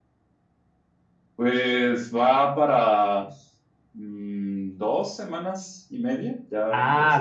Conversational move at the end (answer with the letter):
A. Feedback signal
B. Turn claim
B